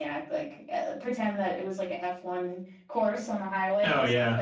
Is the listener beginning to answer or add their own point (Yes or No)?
No